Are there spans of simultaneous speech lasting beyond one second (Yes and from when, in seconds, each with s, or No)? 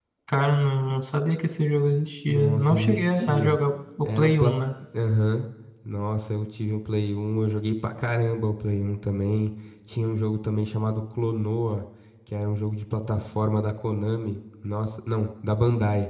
Yes, from 2.3 s